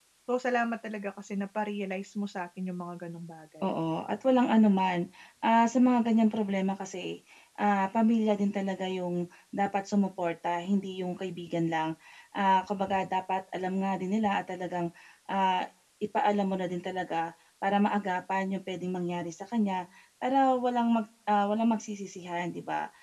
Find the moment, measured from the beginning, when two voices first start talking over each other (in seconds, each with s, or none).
none